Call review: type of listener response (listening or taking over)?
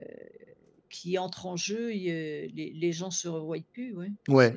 taking over